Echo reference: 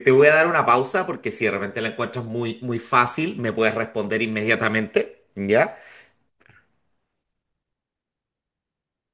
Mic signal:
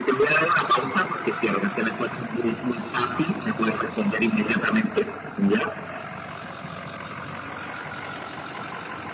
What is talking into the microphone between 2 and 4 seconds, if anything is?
echo only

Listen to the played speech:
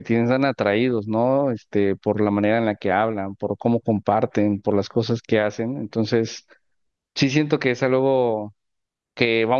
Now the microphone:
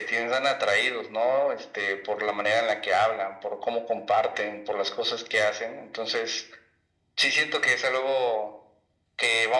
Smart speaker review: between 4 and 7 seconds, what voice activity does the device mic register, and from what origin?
echo only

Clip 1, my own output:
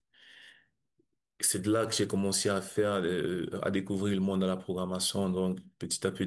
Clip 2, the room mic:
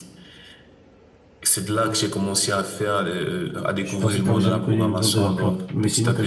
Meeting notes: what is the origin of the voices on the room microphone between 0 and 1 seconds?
neither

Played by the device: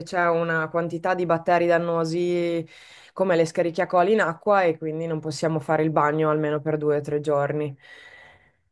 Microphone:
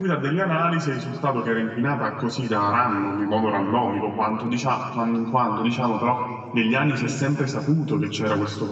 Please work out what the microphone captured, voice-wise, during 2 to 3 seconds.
user only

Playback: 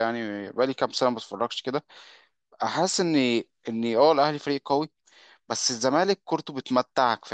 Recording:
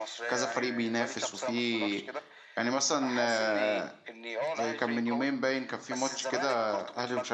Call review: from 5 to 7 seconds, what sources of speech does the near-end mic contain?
both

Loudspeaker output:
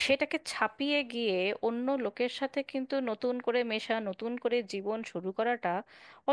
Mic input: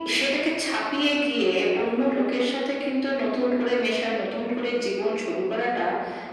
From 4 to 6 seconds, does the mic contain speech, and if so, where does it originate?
echo only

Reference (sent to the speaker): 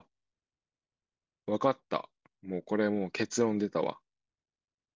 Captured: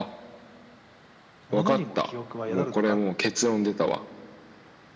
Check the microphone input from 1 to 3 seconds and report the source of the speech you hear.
both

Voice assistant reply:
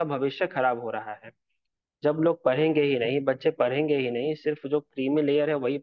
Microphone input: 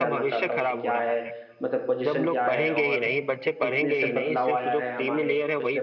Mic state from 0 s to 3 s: both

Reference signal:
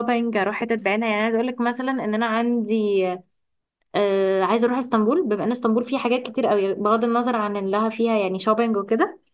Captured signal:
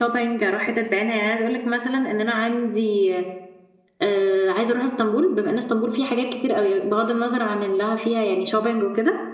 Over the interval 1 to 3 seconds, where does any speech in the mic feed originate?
echo only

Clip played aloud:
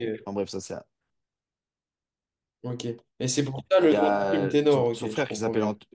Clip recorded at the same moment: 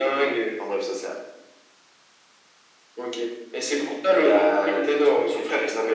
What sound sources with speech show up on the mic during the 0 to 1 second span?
echo only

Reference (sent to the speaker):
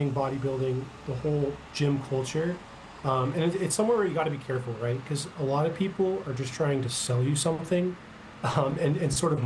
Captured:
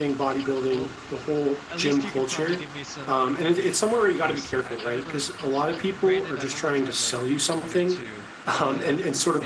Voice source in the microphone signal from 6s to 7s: both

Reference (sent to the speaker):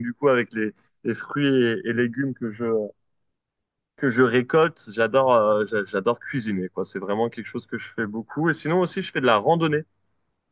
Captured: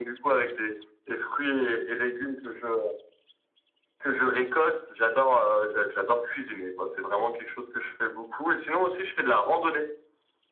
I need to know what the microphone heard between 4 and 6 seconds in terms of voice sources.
echo only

